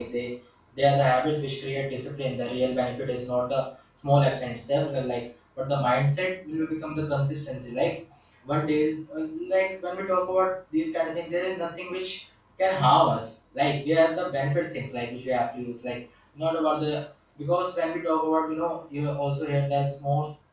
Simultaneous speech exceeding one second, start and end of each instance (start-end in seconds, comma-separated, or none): none